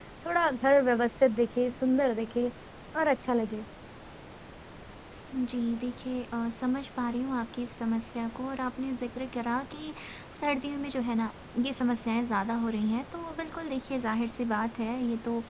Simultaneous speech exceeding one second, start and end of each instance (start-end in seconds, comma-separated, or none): none